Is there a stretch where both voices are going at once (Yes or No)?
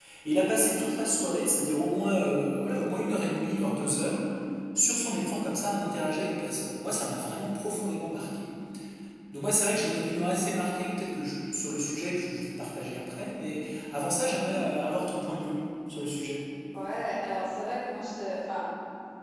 No